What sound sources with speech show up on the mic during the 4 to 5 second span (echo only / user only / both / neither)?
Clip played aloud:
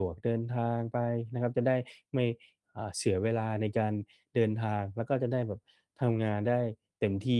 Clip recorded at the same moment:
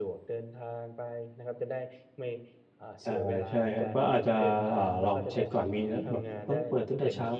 both